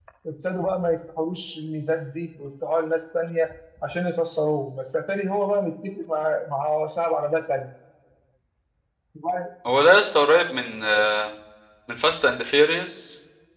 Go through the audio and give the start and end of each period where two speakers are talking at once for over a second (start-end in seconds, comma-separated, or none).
none